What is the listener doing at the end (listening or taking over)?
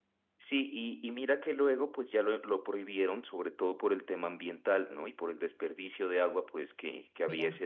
listening